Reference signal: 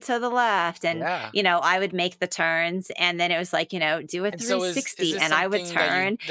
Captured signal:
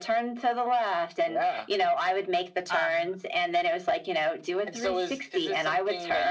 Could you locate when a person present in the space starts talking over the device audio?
3 s

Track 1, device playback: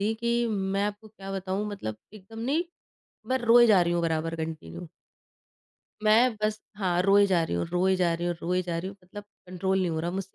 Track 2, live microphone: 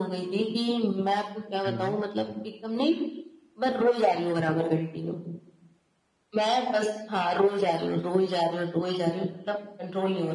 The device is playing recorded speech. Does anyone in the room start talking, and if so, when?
2 s

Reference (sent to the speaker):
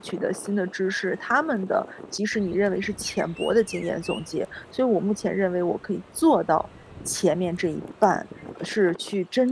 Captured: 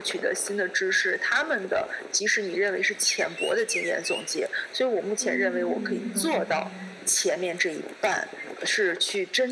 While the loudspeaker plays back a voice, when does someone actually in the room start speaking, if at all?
5 s

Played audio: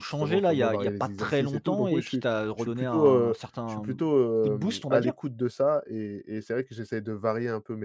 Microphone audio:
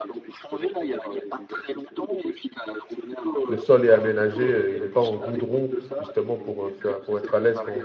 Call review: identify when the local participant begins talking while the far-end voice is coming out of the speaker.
3 s

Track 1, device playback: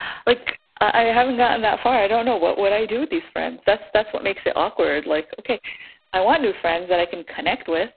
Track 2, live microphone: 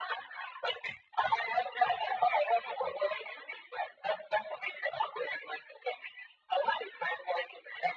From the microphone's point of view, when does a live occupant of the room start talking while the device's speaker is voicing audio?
none

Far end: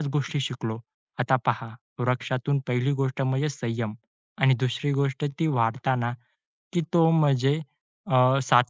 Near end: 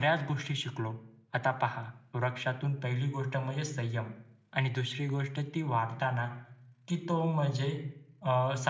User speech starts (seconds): none

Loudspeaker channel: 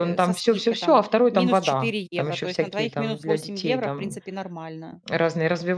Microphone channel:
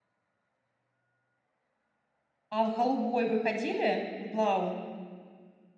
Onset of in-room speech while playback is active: 2 s

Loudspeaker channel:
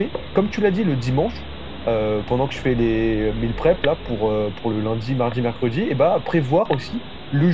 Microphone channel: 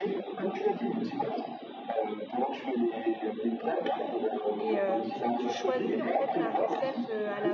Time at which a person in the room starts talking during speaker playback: 5 s

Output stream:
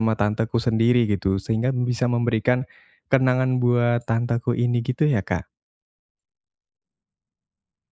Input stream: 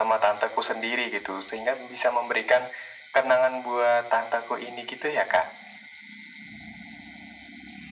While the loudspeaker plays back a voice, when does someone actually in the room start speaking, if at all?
none

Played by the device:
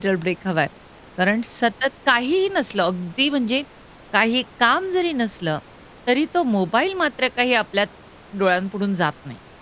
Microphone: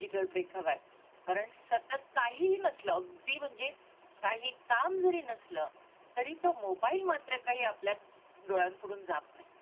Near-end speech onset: none

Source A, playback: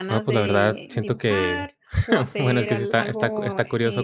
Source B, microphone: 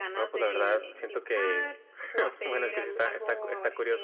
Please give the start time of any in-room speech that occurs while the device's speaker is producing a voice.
none

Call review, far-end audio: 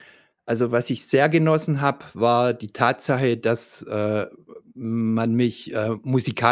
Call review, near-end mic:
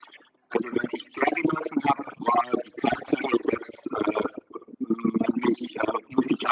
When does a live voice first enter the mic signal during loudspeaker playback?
none

